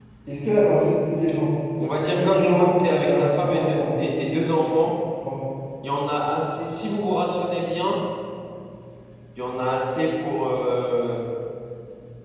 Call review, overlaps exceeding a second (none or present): present